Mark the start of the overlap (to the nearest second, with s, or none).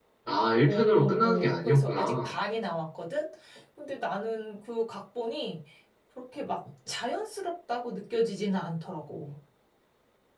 1 s